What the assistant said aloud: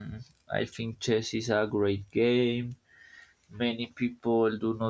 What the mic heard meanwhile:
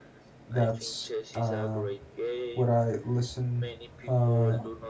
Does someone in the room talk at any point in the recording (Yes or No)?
Yes